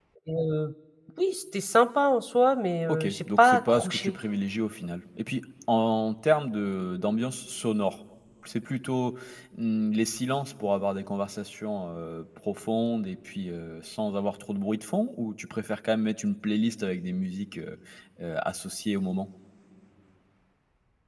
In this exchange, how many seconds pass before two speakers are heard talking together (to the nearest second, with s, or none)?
3 s